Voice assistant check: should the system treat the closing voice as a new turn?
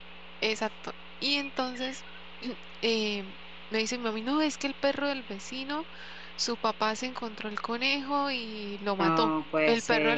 No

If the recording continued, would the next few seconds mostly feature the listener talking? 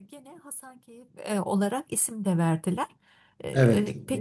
No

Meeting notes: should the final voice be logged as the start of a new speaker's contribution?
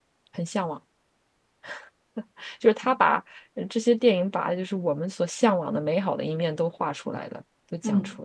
Yes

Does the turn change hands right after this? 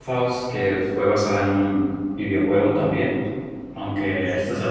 No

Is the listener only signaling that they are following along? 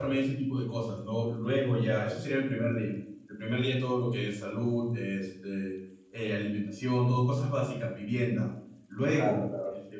Yes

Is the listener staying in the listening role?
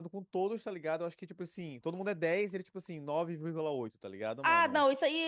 No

